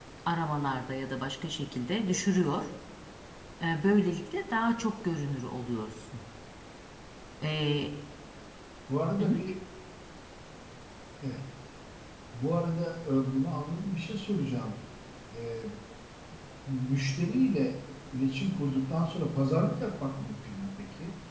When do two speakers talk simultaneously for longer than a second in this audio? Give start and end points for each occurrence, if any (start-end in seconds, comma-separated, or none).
none